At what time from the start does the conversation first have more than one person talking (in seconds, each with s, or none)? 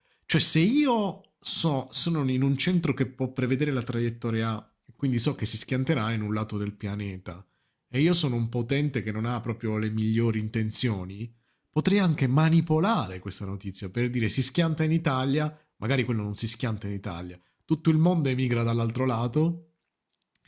none